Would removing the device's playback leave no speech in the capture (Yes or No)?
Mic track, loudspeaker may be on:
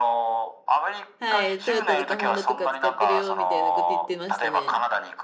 No